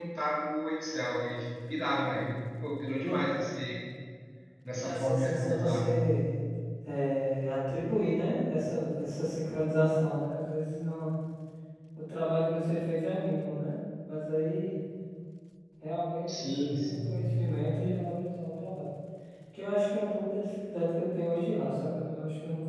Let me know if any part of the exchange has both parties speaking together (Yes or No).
Yes